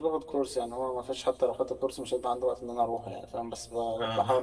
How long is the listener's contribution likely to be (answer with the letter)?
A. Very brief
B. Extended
A